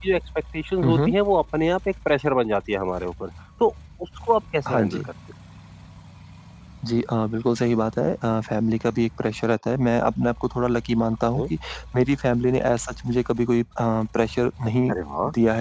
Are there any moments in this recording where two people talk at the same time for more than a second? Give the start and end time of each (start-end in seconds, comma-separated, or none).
none